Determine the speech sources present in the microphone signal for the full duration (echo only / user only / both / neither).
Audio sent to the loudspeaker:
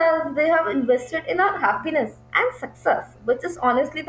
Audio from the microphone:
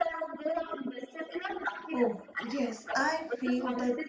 both